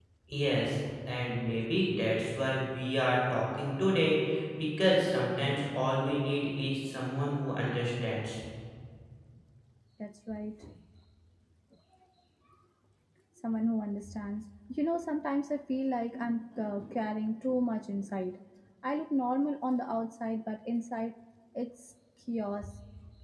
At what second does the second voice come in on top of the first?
none

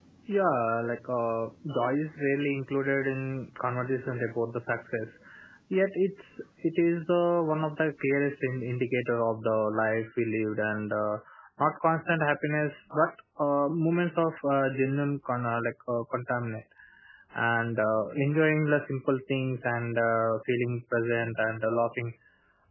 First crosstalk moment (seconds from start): none

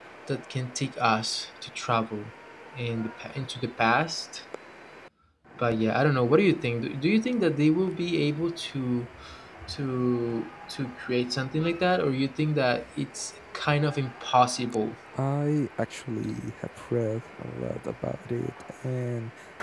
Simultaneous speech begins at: none

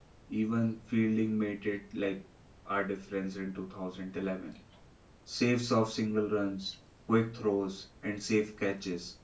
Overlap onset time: none

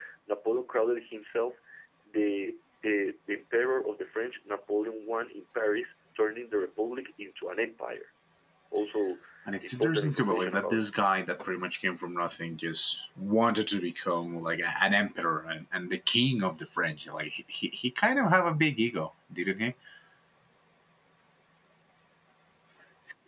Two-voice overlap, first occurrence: 9.6 s

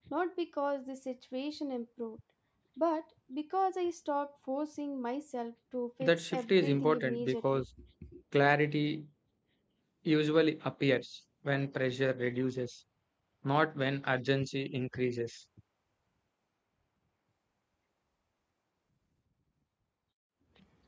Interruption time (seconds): 6.0 s

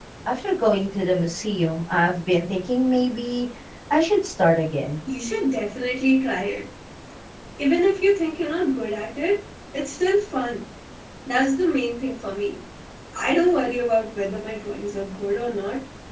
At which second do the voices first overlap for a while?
none

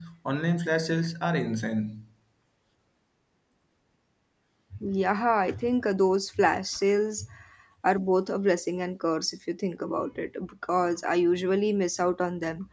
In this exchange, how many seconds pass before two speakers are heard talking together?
none

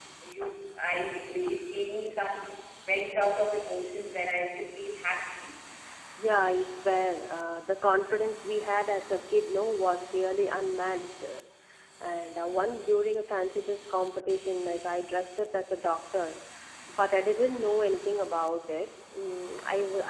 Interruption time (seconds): none

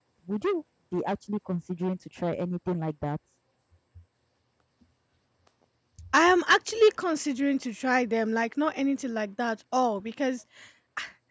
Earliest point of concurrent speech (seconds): none

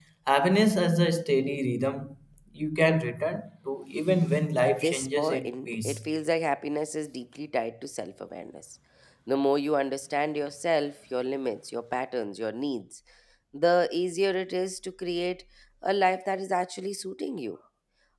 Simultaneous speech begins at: 4.6 s

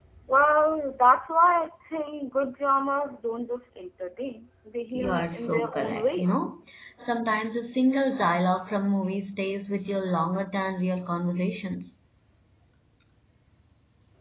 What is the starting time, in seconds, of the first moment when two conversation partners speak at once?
4.9 s

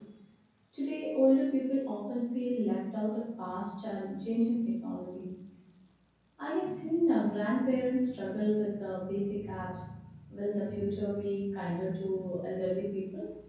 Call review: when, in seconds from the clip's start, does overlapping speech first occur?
none

